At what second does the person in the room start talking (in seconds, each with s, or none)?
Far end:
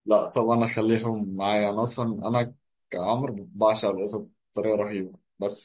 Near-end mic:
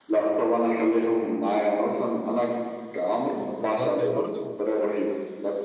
3.4 s